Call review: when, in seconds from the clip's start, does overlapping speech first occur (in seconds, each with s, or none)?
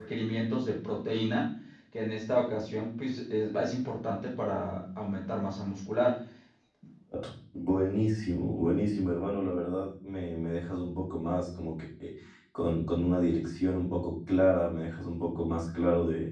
none